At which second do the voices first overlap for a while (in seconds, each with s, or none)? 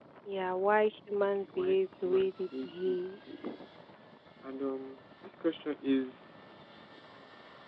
1.2 s